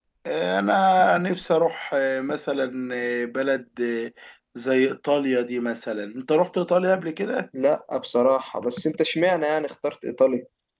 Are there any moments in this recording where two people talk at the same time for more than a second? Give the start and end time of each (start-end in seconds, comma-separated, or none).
none